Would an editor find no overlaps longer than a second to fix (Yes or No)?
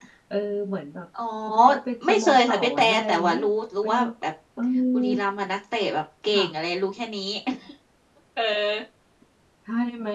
No